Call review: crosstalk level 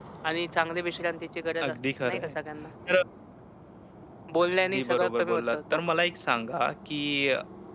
present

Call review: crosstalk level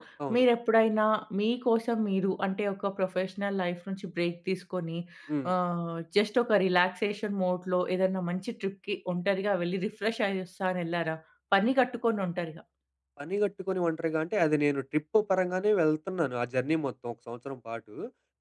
none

